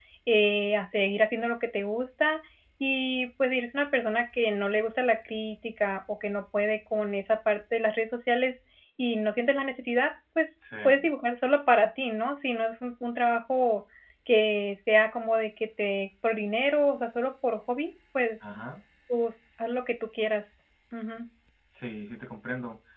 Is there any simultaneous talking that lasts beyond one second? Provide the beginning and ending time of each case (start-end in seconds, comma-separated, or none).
none